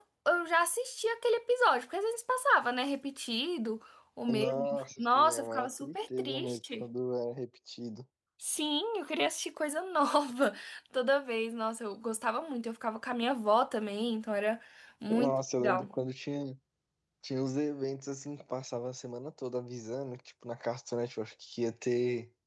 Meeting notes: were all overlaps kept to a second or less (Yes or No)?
No